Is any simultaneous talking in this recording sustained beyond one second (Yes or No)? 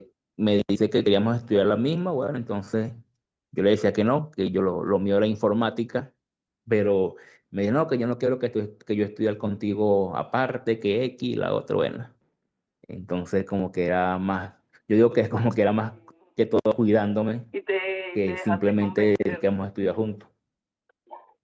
Yes